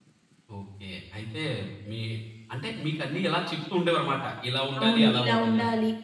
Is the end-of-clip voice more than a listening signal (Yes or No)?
Yes